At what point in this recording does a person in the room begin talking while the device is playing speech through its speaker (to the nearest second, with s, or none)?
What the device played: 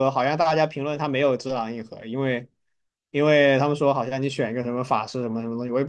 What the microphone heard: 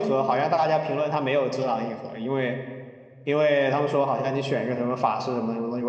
none